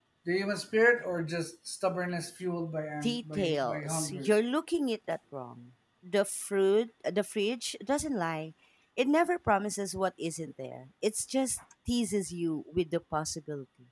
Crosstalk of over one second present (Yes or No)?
Yes